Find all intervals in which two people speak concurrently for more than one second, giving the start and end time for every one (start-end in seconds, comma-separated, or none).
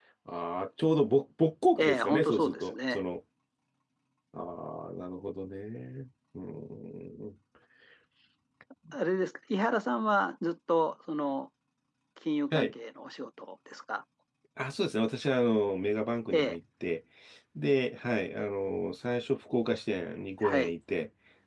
1.8-3.0